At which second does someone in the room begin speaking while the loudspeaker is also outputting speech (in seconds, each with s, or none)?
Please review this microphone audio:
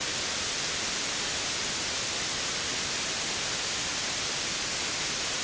none